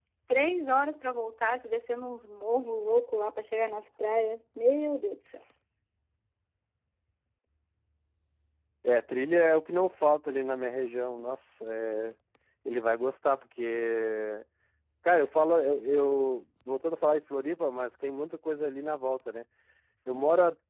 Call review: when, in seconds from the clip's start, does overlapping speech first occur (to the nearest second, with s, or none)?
none